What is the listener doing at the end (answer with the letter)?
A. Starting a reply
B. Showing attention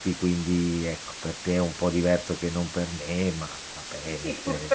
A